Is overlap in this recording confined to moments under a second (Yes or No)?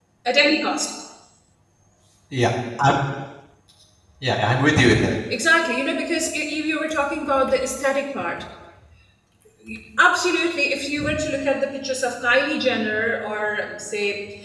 Yes